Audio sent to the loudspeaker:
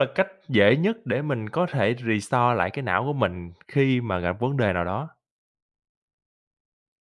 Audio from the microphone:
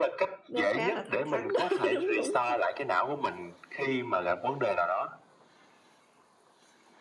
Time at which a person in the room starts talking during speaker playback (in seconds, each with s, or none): 0.5 s